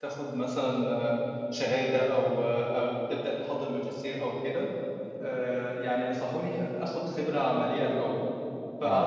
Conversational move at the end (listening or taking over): listening